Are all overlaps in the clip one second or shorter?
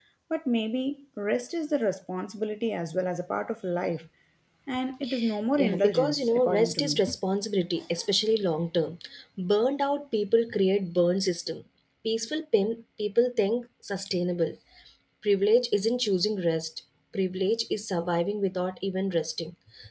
No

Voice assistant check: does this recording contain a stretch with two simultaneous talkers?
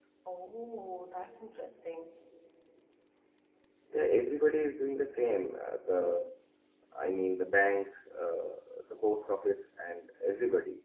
No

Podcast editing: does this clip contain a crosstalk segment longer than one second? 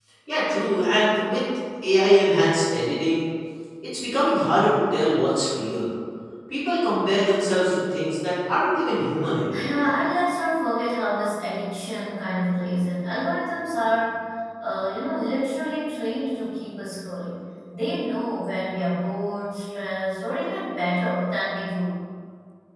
No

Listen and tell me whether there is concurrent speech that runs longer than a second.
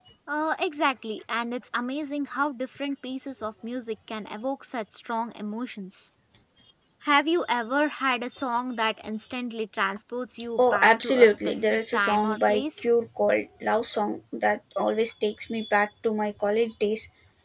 Yes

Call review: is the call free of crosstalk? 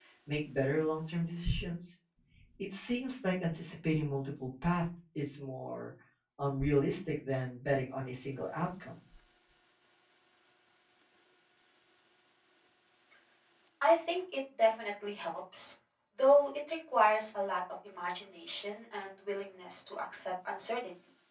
Yes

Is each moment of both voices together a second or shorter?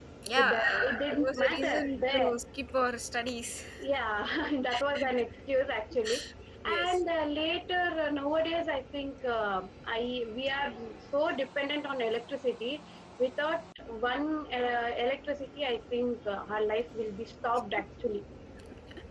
No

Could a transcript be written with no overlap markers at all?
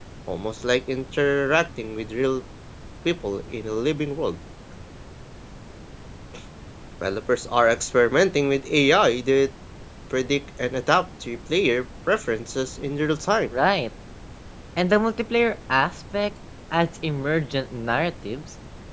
Yes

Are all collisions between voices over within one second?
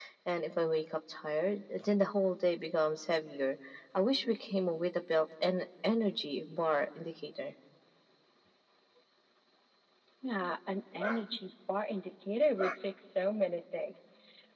Yes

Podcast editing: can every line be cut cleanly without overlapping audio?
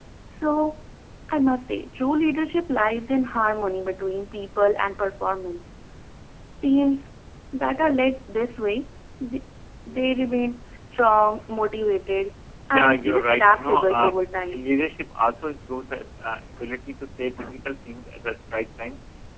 No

